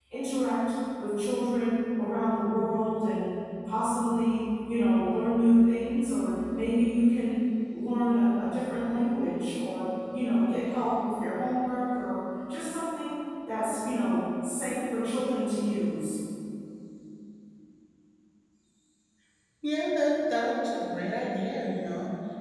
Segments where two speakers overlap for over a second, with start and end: none

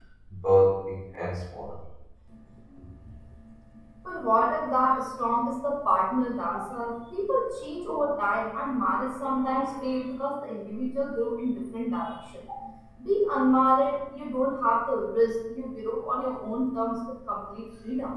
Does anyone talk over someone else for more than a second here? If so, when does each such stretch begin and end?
none

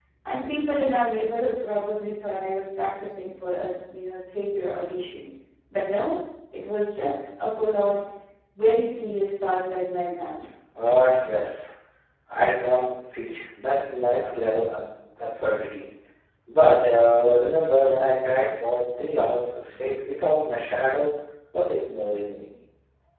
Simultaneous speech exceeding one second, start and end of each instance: none

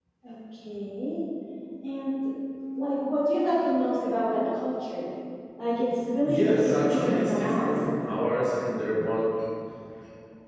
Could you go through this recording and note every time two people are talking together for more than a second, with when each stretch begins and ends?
6.2-7.7

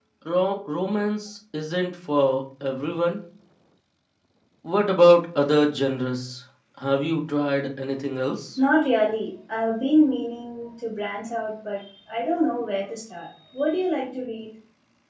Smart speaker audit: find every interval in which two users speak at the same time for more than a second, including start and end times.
none

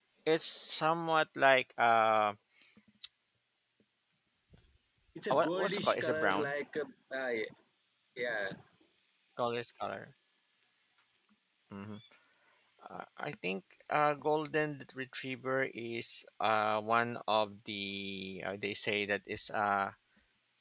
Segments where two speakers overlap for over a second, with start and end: 5.3-6.5

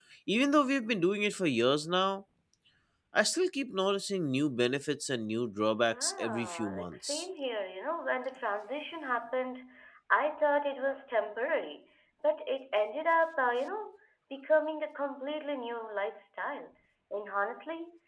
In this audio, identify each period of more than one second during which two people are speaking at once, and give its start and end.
5.8-7.2

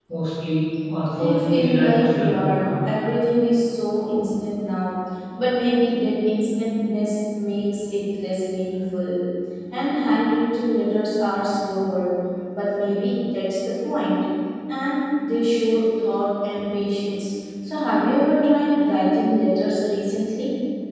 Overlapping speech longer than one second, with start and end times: 1.2-2.7

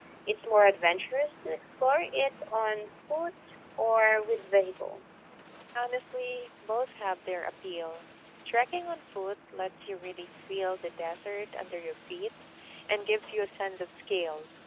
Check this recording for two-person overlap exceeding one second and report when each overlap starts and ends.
none

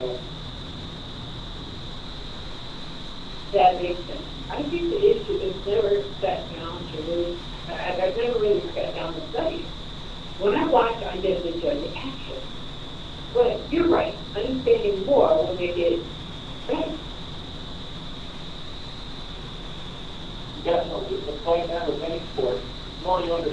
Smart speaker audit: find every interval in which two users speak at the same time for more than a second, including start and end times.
none

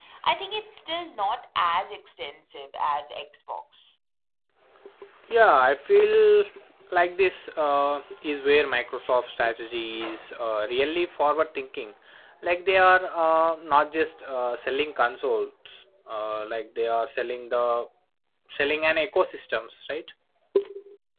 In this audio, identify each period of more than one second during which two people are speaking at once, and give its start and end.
none

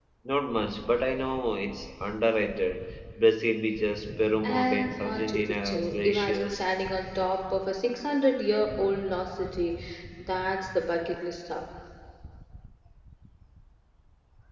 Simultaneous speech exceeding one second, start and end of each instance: 4.4-6.7

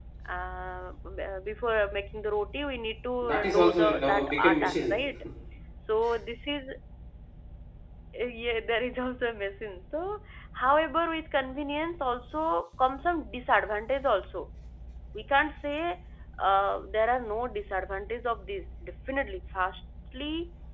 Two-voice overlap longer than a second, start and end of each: 3.2-5.0

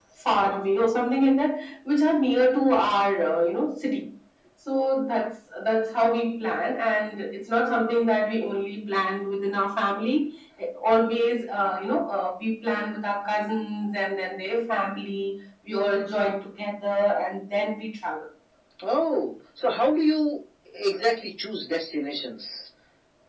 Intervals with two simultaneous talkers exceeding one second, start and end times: none

